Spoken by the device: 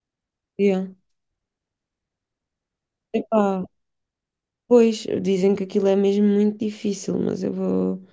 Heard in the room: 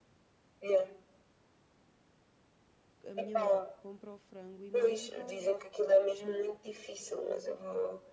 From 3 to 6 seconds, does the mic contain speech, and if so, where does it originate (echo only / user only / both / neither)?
both